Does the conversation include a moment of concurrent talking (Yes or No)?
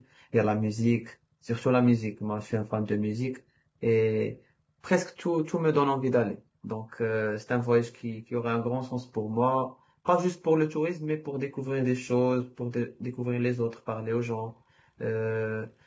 No